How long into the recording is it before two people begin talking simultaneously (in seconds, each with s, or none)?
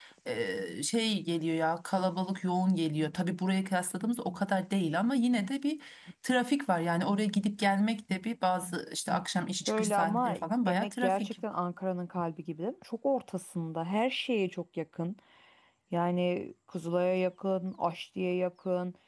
9.7 s